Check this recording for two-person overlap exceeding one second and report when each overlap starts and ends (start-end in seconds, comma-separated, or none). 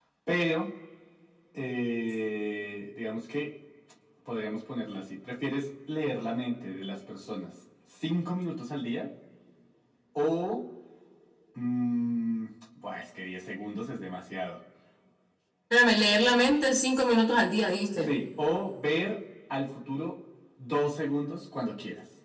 none